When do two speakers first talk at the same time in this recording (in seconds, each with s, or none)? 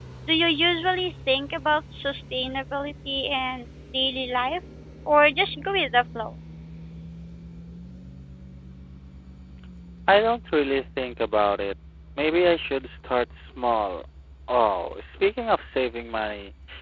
none